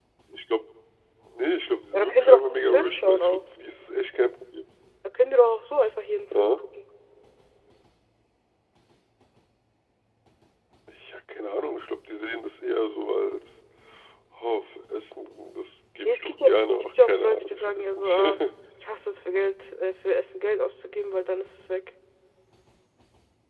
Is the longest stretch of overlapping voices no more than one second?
No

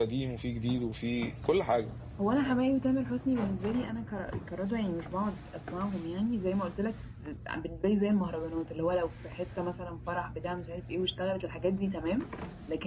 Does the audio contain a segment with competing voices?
No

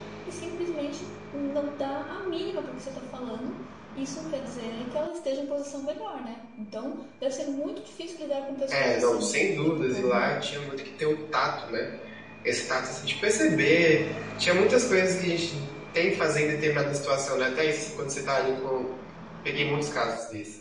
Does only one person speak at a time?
No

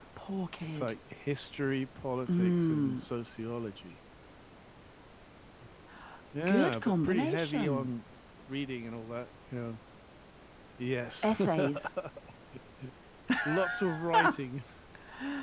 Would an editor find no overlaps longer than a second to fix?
No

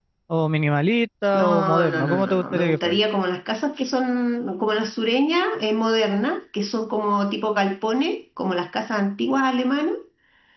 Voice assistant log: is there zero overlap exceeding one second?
No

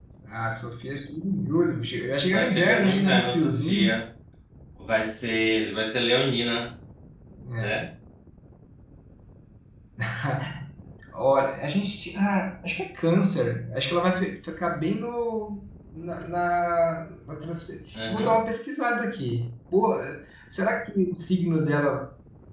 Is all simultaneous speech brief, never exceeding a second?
No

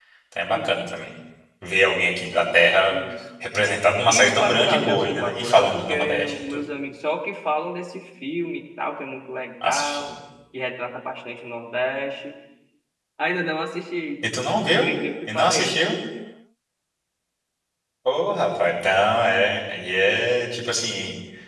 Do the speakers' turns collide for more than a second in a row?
Yes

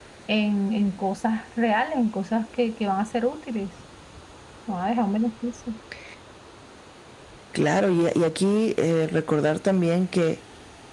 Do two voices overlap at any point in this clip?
No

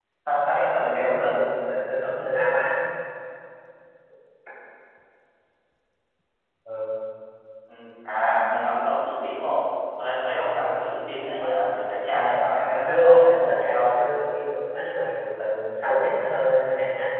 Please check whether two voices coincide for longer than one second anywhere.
Yes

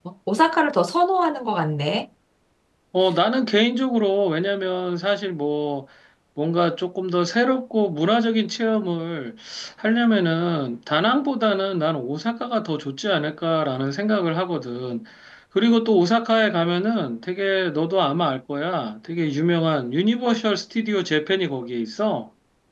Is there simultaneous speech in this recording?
No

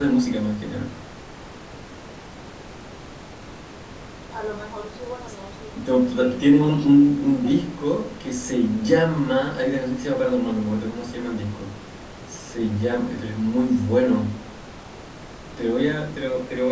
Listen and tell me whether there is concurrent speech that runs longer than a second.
Yes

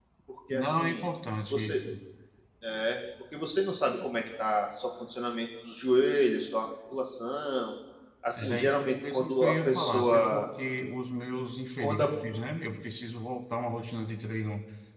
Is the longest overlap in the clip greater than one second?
Yes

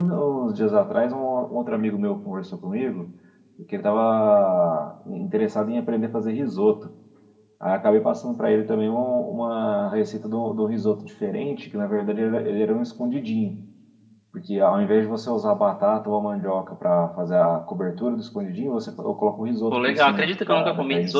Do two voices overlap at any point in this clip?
Yes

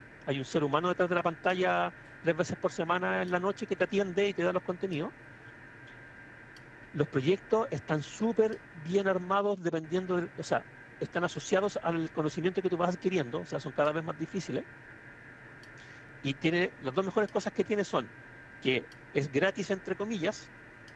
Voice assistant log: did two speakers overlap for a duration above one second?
No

